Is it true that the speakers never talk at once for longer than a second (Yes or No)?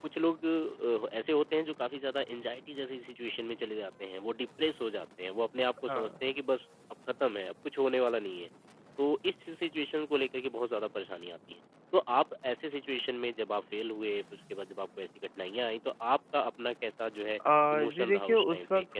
No